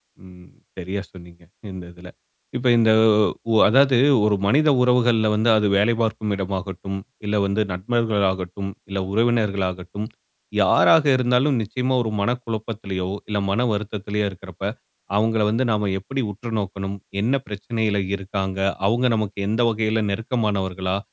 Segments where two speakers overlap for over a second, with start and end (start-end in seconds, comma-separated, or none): none